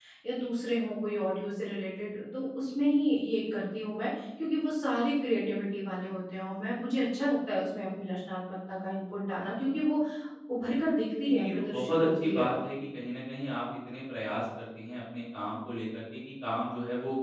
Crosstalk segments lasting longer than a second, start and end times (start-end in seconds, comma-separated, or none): 11.2-12.5